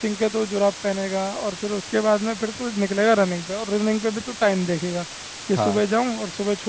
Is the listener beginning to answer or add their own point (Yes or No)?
No